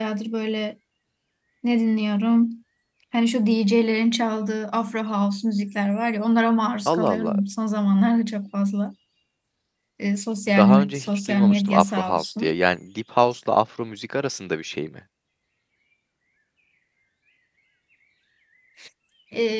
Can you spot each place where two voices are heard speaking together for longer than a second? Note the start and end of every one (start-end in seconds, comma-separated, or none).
10.6-12.5